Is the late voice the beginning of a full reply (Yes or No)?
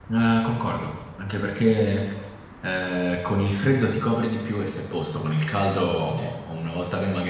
No